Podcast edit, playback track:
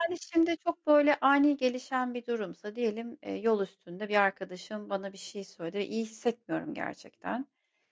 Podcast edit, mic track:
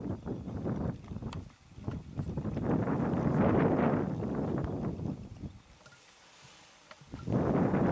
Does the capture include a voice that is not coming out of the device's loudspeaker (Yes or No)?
No